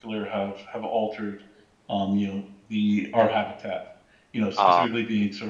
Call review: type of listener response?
listening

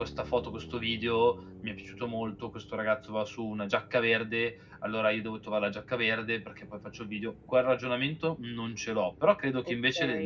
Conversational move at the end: listening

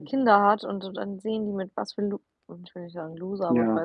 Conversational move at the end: listening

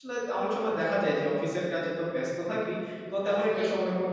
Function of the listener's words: listening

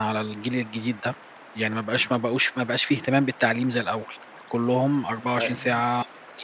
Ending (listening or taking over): listening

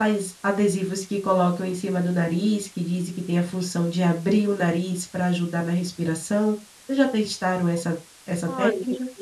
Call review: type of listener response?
taking over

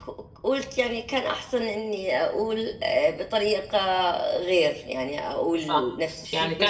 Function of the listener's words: taking over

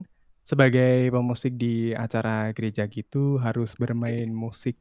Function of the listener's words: listening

